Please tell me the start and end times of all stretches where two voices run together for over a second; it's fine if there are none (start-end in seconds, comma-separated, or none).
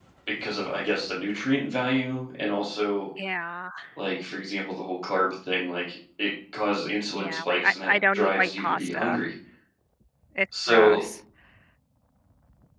7.2-9.2